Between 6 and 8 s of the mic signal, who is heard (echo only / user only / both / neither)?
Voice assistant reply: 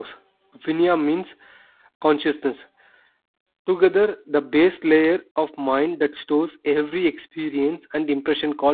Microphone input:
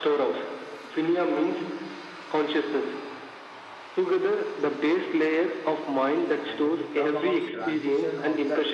both